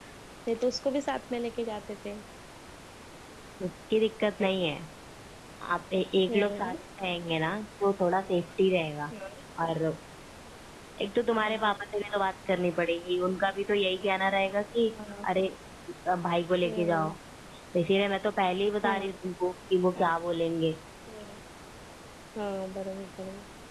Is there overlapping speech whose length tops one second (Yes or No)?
No